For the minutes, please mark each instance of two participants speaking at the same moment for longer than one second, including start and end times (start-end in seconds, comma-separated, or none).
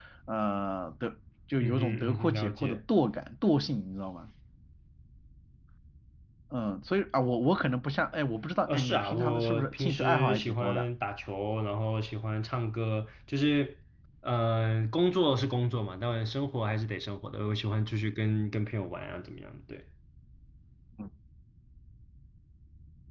1.6-2.8, 8.7-10.8